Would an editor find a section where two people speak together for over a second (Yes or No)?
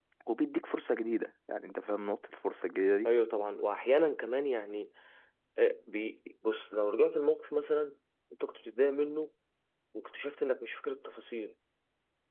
No